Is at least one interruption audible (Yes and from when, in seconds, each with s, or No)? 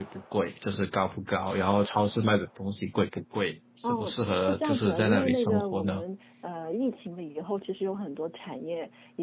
Yes, from 3.8 s